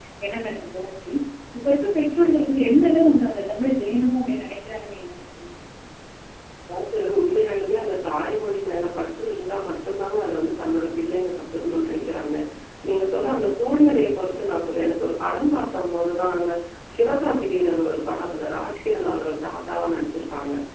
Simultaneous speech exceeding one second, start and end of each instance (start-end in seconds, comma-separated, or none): none